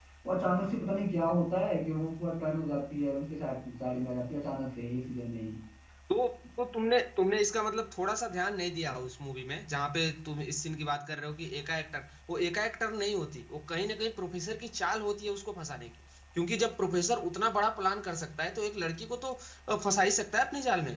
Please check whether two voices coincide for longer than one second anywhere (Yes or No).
No